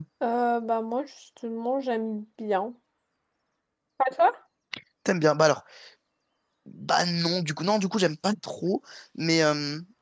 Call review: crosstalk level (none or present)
none